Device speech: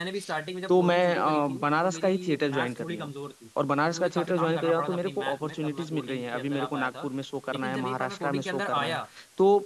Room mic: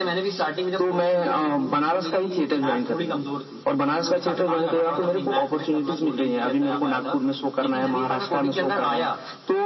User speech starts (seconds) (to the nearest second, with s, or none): none